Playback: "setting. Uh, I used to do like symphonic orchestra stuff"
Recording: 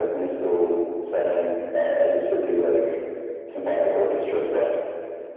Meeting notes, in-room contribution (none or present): none